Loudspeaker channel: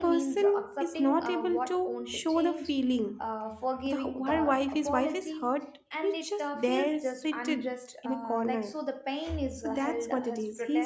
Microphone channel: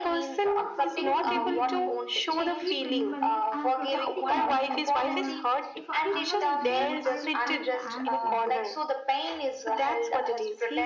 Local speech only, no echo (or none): And some people believe like if I keep remembering, I am protecting myself, or if I analyze more, I will find the answers.